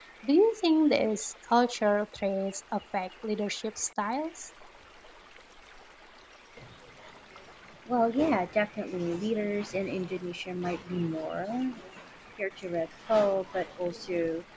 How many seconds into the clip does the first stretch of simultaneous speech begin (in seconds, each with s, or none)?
none